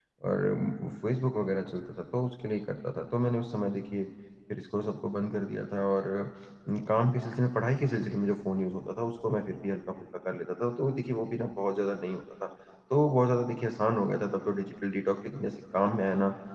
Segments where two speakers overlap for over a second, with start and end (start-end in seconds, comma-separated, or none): none